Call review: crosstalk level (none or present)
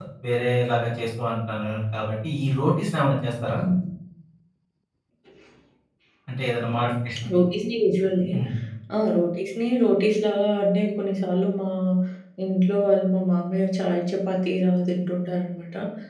none